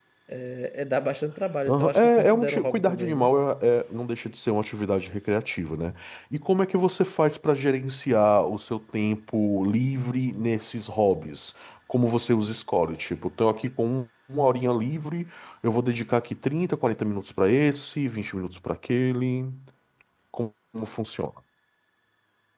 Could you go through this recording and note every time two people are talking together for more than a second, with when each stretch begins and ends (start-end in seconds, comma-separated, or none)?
1.7-3.3